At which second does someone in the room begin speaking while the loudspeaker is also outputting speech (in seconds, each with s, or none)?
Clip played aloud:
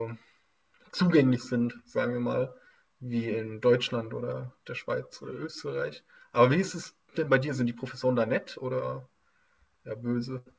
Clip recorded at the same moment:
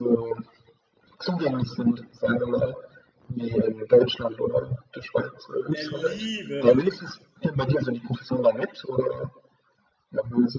5.7 s